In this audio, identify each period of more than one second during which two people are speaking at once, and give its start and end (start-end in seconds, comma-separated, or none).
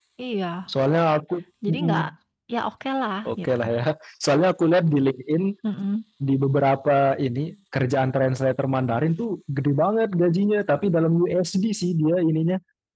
none